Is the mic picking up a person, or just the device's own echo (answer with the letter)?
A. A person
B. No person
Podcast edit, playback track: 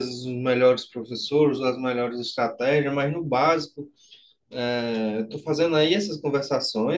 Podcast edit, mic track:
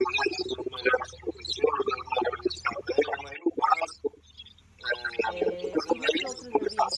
A